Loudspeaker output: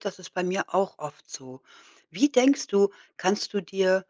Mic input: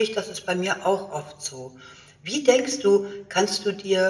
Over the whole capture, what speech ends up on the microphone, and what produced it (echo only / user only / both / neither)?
echo only